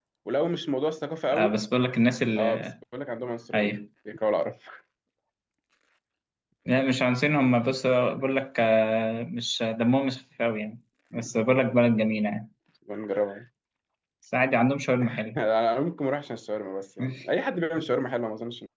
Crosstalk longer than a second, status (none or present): none